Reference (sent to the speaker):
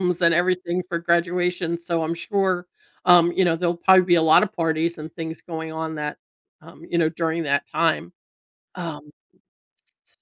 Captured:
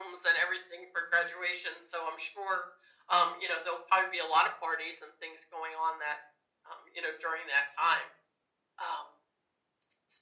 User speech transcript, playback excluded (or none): none